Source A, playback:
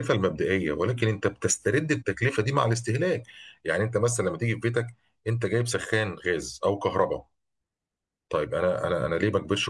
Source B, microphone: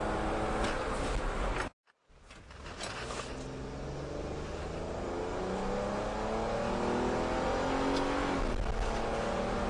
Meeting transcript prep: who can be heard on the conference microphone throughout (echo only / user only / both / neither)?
neither